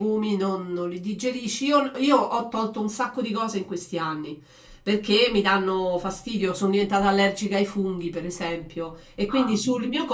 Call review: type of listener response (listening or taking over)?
listening